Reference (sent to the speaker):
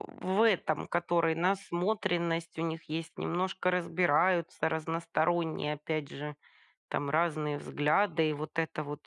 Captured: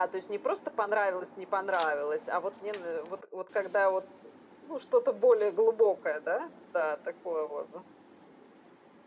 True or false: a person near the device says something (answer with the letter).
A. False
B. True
B